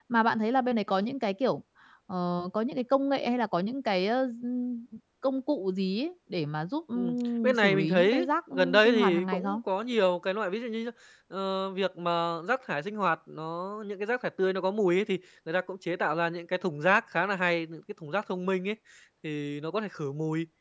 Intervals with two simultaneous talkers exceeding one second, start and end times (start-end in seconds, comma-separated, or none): 6.9-9.6